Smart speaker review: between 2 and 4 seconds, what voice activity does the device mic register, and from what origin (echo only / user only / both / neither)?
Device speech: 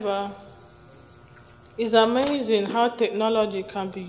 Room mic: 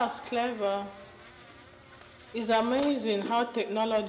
echo only